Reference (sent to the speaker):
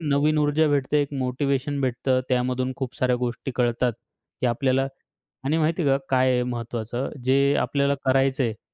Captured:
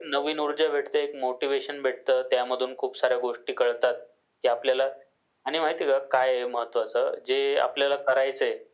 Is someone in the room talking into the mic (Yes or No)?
No